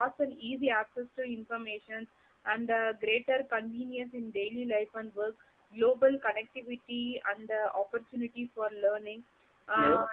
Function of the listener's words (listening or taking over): listening